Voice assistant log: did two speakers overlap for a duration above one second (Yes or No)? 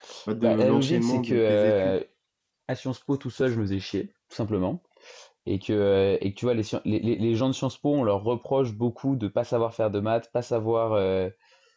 Yes